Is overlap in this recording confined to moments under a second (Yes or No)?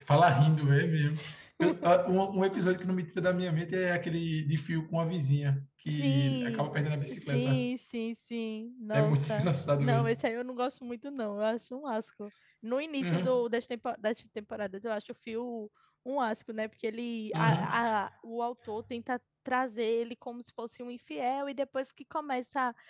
No